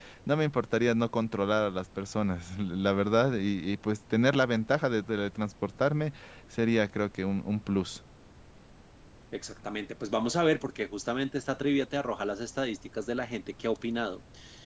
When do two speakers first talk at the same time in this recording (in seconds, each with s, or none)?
none